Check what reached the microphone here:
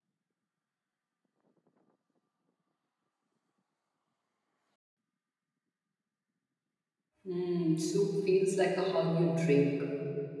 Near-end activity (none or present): present